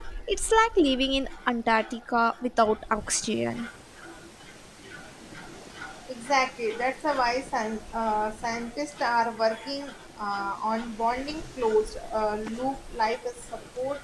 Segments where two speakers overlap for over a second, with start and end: none

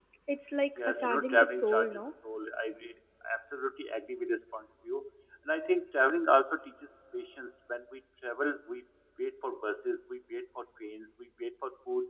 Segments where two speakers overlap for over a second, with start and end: 0.8-2.0

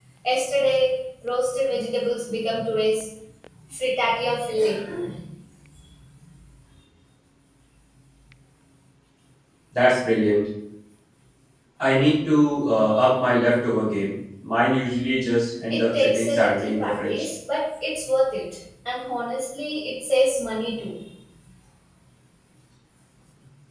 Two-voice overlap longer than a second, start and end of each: 15.7-17.2

